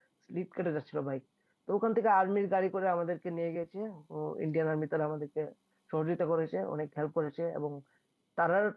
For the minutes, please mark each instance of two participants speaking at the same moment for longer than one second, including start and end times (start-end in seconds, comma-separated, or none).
none